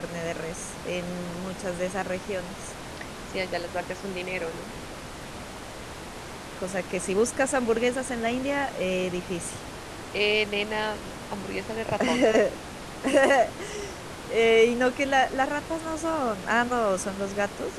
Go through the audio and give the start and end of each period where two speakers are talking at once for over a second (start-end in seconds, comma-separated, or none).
none